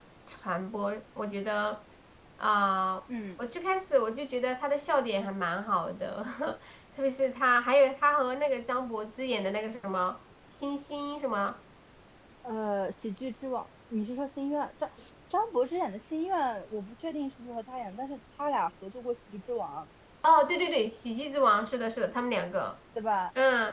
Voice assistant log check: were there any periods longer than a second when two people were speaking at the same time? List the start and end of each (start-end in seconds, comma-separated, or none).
none